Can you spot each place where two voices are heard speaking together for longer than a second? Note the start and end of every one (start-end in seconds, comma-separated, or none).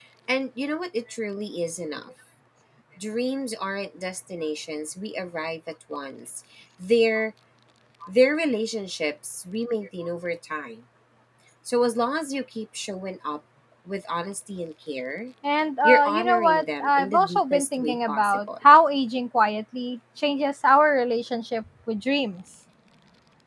15.8-18.4